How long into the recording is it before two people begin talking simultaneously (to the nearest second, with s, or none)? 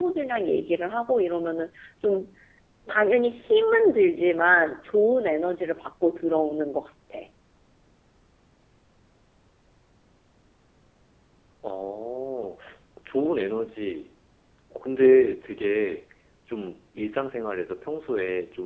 none